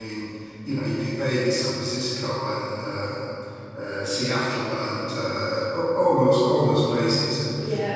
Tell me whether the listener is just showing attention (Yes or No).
Yes